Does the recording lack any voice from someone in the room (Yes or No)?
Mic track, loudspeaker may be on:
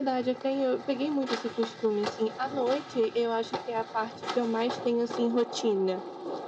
Yes